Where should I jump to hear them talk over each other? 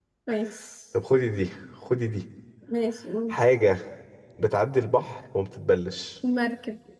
none

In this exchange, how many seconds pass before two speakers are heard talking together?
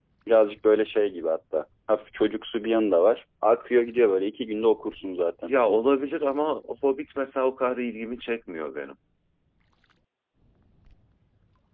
none

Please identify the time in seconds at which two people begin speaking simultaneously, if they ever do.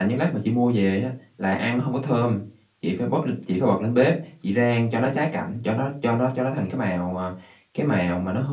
none

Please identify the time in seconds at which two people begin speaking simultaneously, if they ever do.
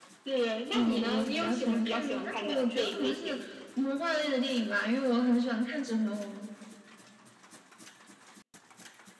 0.7 s

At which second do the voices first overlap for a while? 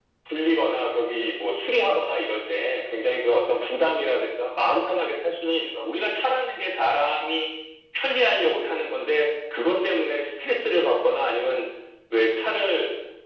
none

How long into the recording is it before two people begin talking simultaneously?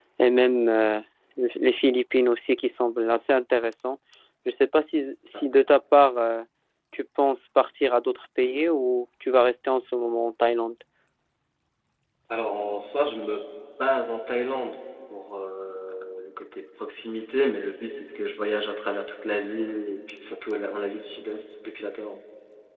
none

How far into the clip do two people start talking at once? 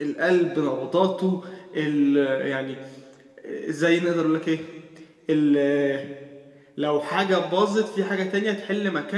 none

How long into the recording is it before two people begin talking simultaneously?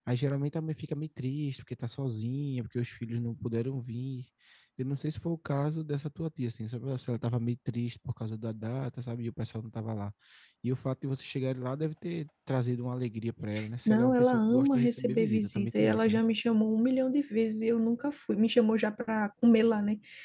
13.9 s

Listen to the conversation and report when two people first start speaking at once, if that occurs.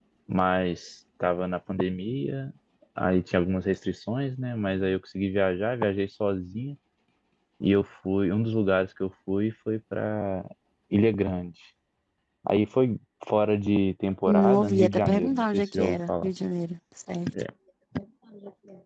14.3 s

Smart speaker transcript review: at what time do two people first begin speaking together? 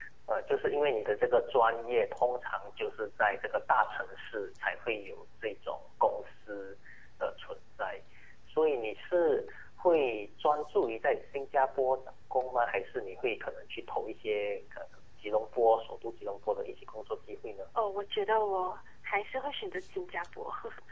none

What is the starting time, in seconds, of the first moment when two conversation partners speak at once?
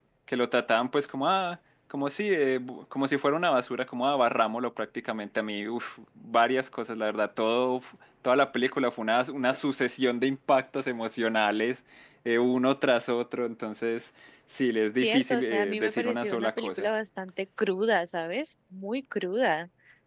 15.0 s

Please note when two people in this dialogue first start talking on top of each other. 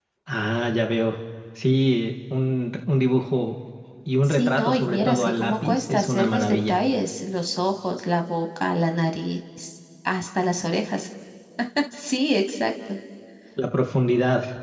4.2 s

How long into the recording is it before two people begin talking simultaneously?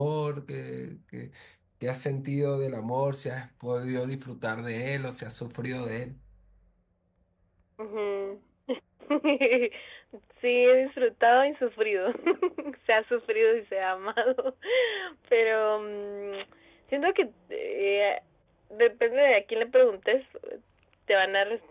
none

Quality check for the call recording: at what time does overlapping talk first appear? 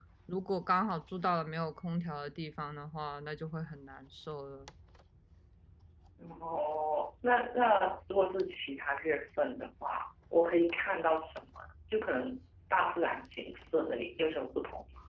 none

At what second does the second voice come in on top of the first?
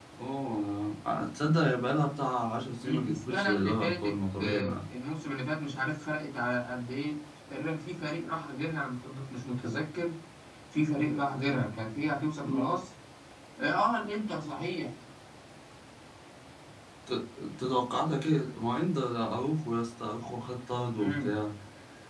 2.8 s

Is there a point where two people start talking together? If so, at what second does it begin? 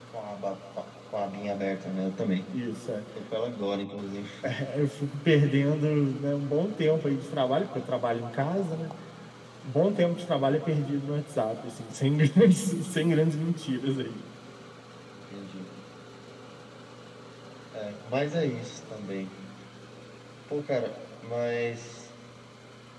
none

